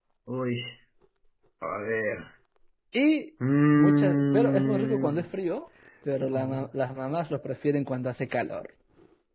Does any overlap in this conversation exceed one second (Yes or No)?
Yes